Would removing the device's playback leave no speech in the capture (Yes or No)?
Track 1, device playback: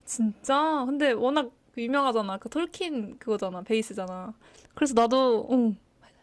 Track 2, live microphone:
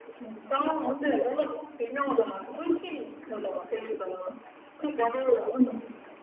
Yes